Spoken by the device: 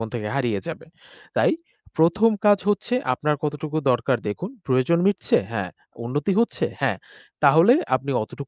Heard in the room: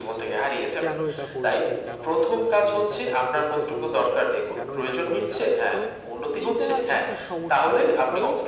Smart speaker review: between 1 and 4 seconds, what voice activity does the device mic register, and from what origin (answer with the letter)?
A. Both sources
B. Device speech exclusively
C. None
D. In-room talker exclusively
A